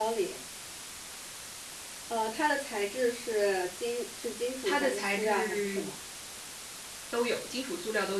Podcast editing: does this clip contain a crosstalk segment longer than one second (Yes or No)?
Yes